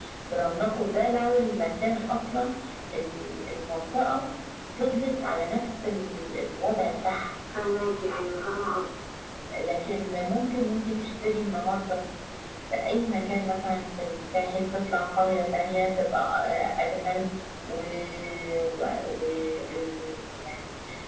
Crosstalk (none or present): none